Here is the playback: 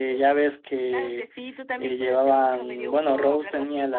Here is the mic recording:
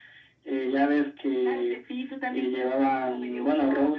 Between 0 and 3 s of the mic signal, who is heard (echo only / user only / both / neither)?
echo only